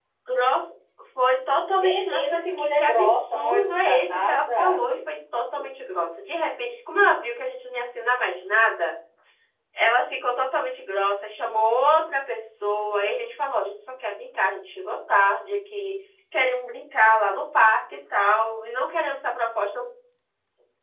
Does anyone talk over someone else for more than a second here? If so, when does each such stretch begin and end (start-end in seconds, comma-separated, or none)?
1.8-4.8